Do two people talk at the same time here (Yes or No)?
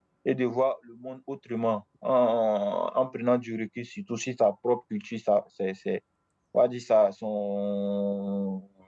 No